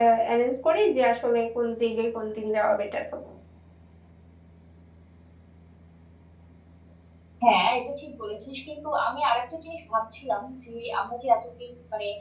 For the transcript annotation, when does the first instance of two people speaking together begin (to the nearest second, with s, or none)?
none